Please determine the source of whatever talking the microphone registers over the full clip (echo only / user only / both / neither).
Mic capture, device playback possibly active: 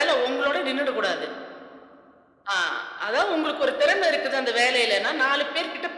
echo only